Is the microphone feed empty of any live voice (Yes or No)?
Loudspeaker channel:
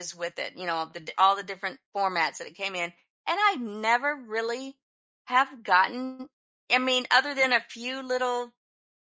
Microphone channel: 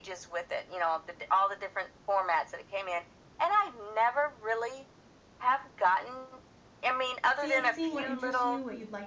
No